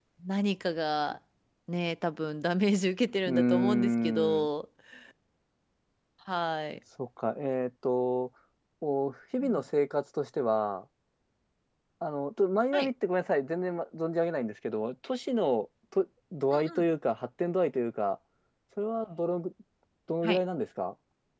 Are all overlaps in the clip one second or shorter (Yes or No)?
No